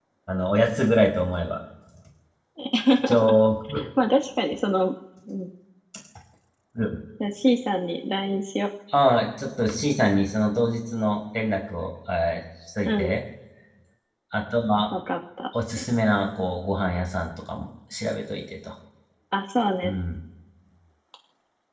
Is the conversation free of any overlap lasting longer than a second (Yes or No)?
Yes